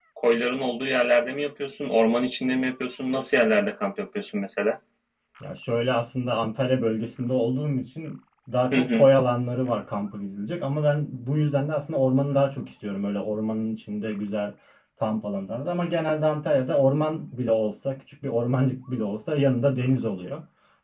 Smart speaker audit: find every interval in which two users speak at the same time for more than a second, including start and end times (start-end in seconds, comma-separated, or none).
none